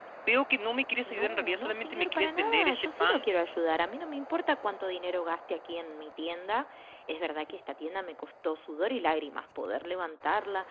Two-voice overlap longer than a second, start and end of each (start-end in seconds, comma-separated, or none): 1.1-3.2